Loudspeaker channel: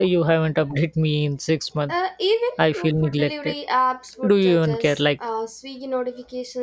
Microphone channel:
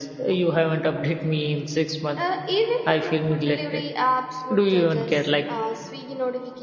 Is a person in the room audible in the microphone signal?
No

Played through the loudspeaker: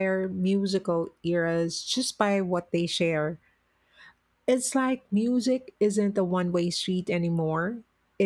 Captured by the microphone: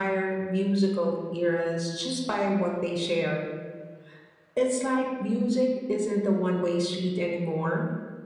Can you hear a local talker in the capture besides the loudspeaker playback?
No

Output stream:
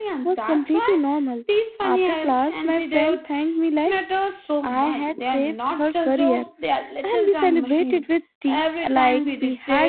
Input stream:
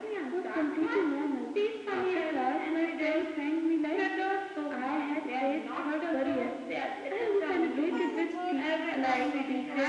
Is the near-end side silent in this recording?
No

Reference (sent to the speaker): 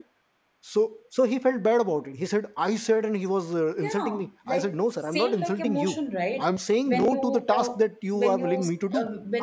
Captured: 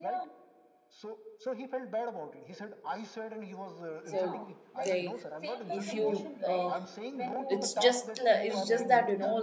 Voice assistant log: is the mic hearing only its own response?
No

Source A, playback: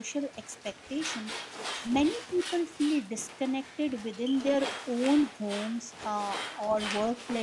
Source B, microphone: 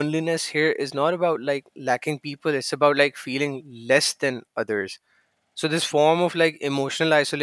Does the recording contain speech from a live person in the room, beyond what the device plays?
Yes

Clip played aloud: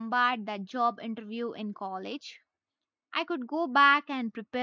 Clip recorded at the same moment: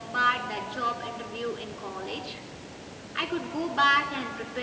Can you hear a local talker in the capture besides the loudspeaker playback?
No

